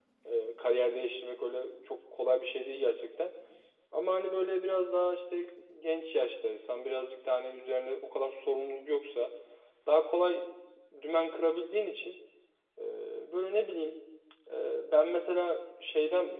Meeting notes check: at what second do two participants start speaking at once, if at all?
none

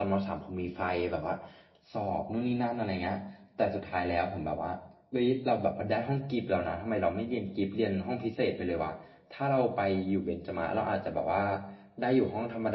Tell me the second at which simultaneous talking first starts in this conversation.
none

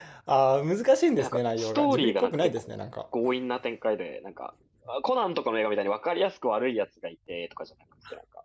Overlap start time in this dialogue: 1 s

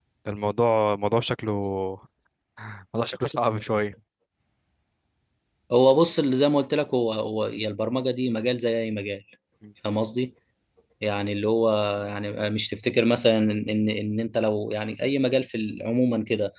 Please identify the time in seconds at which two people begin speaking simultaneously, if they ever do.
none

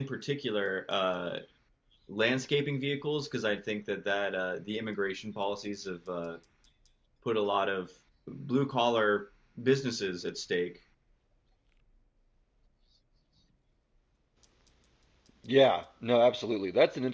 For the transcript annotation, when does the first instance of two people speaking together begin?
none

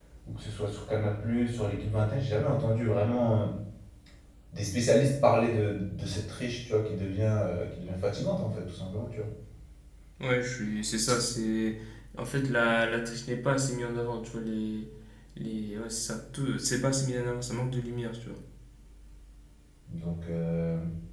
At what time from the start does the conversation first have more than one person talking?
none

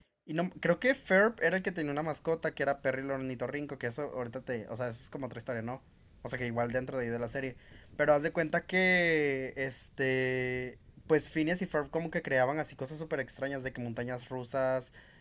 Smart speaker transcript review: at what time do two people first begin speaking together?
none

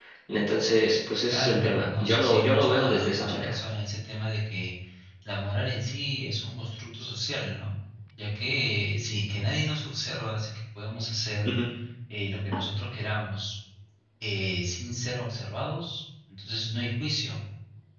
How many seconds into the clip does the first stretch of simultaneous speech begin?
1 s

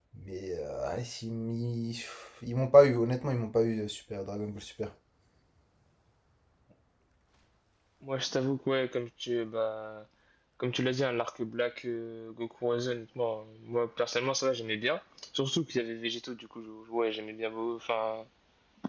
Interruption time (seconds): none

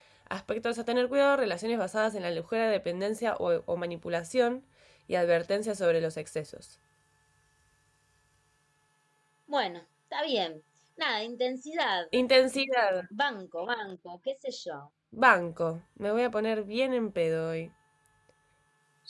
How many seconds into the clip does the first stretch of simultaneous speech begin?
none

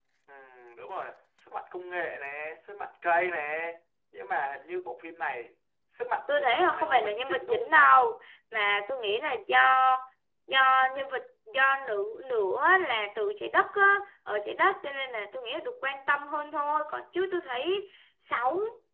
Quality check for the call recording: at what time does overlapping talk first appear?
6 s

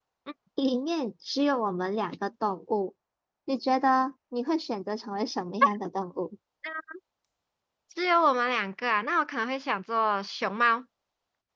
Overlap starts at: none

